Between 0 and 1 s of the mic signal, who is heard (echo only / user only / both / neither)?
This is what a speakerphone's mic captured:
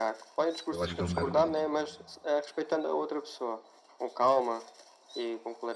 both